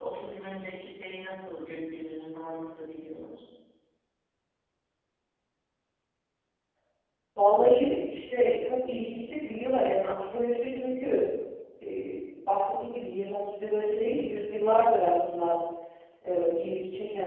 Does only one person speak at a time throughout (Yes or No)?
Yes